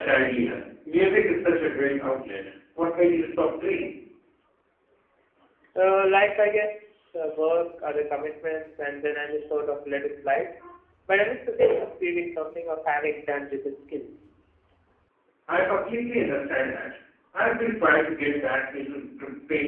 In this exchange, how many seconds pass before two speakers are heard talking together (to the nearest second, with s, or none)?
none